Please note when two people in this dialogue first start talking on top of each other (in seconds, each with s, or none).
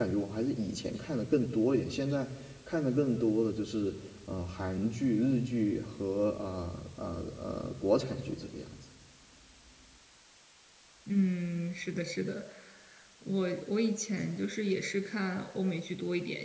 none